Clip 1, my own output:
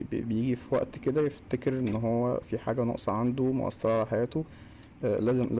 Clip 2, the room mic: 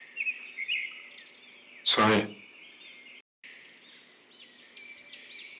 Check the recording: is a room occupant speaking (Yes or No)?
Yes